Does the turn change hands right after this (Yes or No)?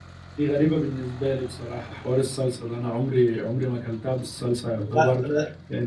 No